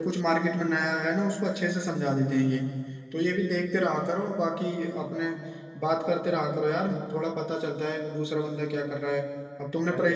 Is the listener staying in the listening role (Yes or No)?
Yes